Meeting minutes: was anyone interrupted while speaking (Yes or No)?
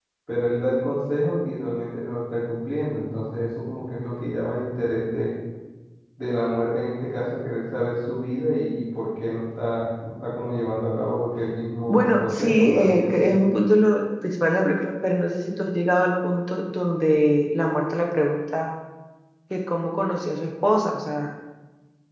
Yes